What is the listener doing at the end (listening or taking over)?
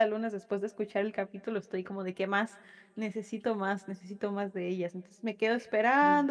listening